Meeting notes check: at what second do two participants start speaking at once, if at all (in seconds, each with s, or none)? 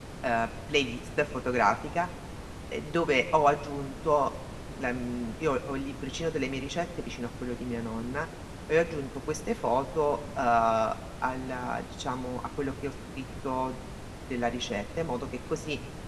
none